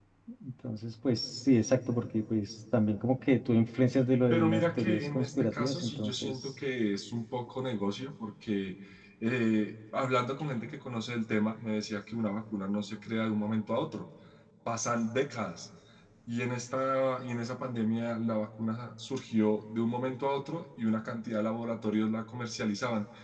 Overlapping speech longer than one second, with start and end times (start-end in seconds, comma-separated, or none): 4.3-6.5